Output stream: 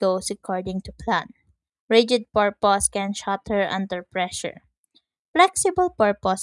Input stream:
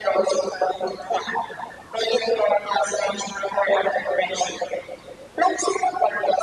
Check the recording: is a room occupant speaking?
No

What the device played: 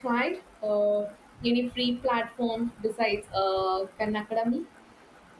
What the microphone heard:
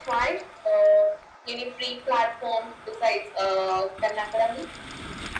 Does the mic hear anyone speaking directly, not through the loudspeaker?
No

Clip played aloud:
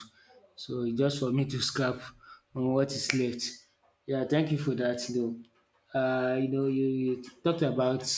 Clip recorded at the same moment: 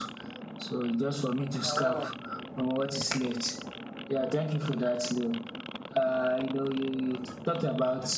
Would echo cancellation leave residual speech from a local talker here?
Yes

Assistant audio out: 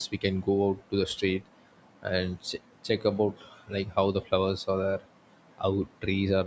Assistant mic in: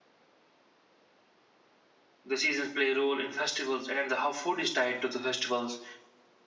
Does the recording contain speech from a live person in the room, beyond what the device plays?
Yes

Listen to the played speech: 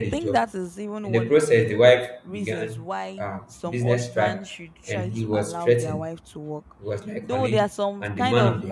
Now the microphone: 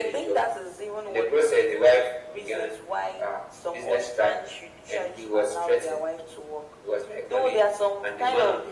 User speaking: No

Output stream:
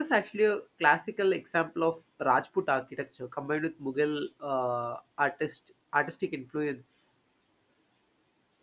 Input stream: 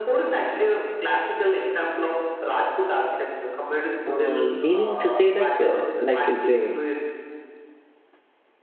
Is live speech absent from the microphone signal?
No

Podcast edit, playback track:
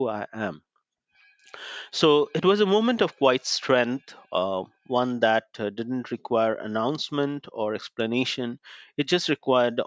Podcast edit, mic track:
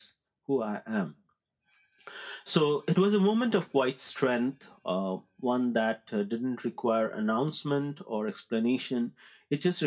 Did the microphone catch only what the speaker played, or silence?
Yes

